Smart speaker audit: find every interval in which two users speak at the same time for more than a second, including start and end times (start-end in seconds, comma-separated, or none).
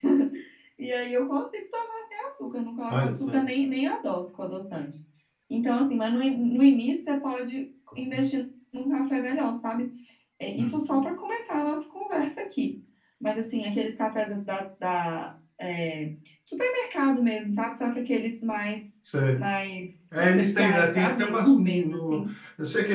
20.2-22.2